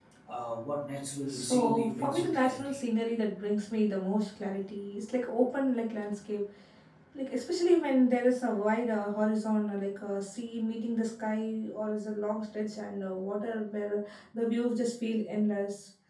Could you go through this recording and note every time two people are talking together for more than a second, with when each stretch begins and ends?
1.3-2.8

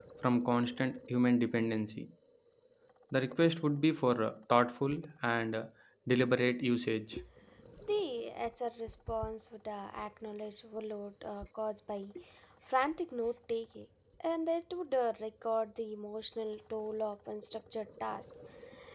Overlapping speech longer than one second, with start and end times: none

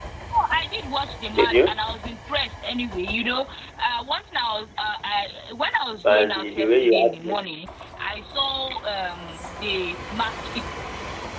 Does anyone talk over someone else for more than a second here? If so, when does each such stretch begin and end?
6.0-7.4

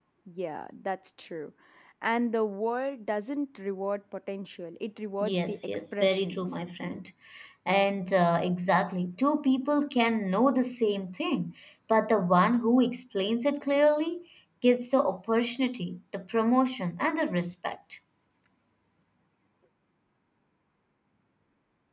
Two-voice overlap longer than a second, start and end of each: 5.2-6.5

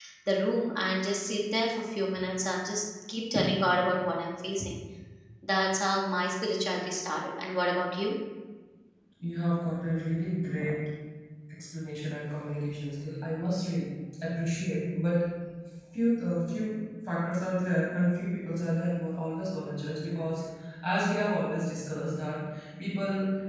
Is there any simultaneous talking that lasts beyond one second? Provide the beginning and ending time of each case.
none

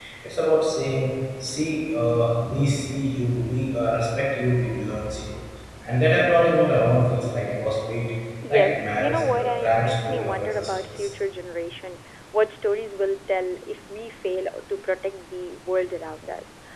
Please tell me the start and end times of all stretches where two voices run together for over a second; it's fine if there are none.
8.5-11.1

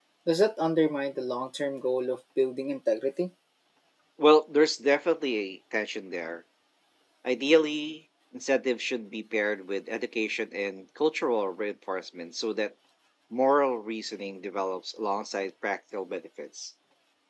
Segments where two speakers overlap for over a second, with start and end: none

